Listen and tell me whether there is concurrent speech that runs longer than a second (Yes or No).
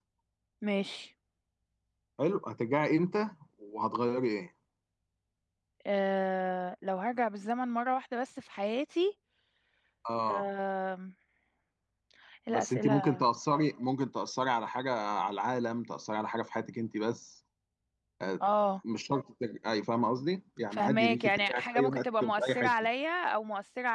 Yes